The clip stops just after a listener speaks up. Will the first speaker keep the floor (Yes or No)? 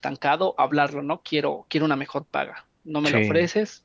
Yes